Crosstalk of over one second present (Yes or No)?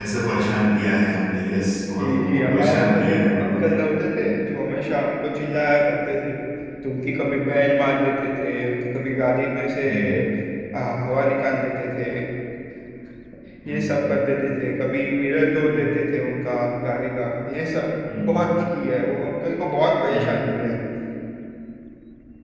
Yes